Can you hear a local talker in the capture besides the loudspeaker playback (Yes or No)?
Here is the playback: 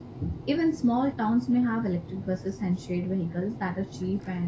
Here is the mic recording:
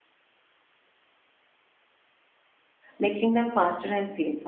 Yes